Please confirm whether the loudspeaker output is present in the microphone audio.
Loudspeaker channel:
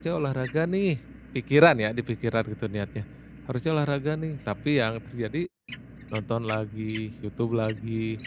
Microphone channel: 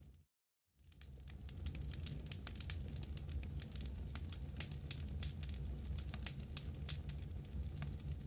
No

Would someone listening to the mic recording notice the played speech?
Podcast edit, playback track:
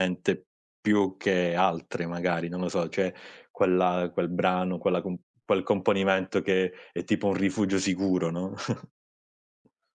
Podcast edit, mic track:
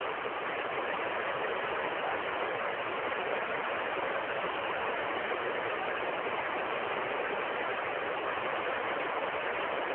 No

